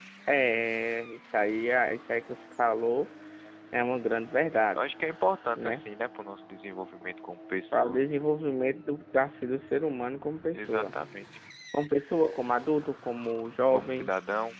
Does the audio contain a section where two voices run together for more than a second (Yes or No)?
No